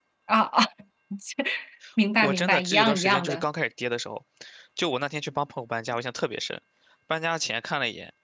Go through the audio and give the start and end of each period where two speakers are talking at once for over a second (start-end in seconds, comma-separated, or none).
2.1-3.4